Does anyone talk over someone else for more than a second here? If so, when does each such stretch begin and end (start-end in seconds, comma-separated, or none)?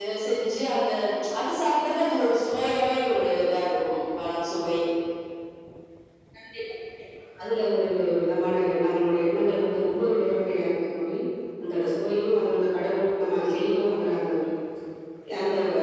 none